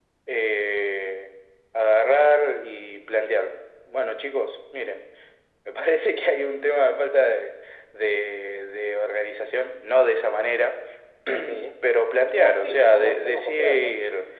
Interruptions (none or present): present